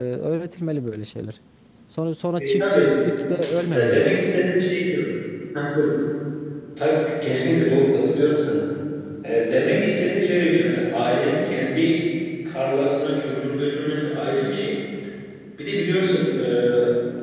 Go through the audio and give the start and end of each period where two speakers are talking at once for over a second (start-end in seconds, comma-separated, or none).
none